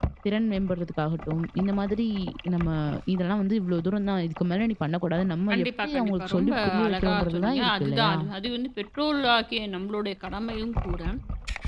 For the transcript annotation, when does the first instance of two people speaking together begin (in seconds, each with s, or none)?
5.5 s